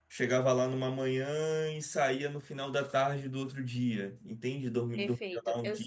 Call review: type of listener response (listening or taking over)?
taking over